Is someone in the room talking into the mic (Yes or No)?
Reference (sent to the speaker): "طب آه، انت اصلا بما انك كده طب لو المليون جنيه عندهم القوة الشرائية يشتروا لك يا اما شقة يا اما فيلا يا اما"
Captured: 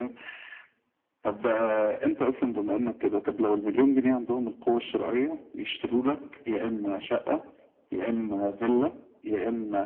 No